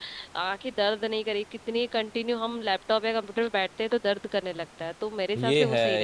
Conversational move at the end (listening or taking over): taking over